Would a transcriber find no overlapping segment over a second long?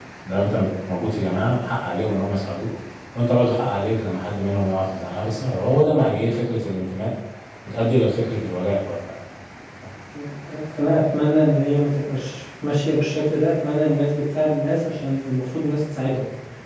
Yes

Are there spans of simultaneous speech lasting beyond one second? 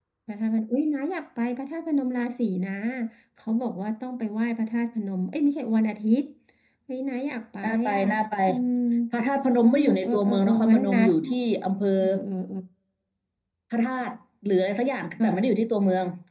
Yes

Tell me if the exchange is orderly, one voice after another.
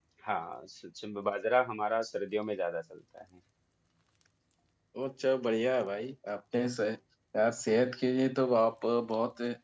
Yes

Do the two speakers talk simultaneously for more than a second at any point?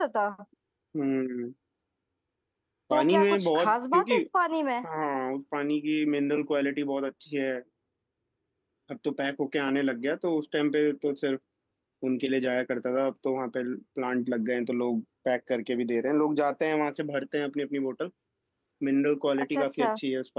Yes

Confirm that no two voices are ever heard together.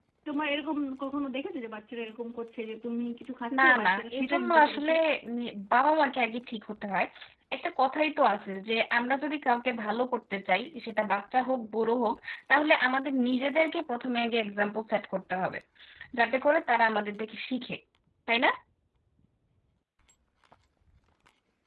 No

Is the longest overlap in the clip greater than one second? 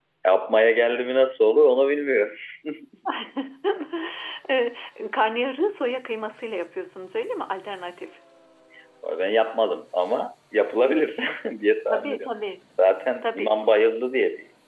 No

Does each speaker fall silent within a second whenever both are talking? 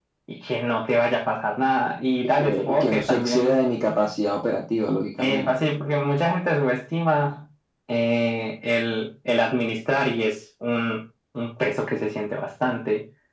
No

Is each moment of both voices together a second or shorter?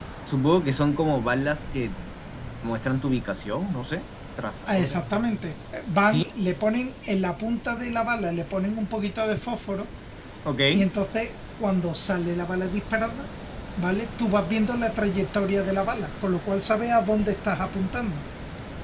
Yes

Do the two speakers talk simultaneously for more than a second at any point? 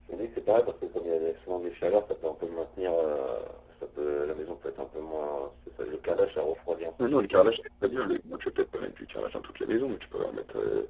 No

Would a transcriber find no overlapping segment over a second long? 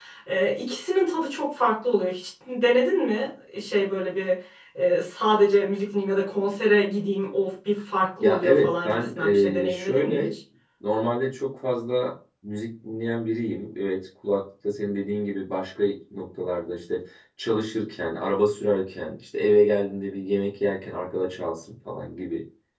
No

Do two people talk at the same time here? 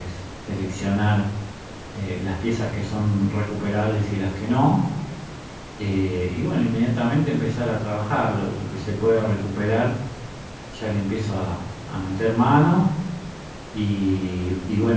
No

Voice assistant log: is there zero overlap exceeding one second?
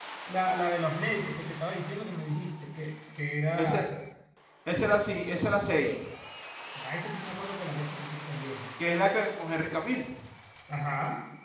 Yes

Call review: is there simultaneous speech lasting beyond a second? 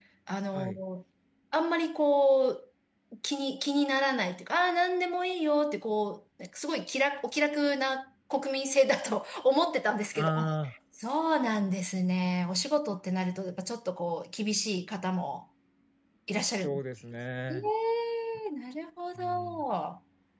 No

